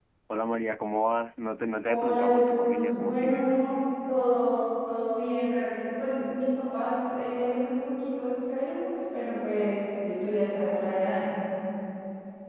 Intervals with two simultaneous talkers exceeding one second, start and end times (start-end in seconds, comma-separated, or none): 1.9-3.6